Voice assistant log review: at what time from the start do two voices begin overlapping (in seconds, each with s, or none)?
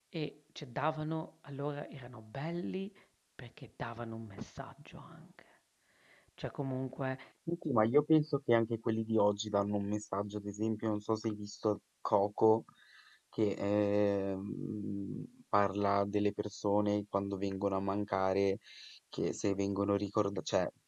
none